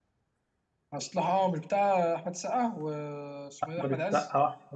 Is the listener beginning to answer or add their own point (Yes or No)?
Yes